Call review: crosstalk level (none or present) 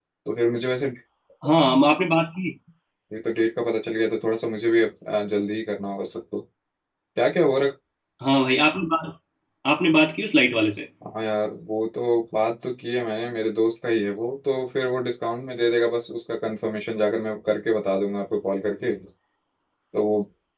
none